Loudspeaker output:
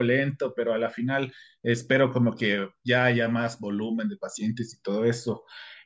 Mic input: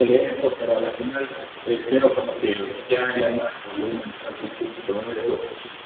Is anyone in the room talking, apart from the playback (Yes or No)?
No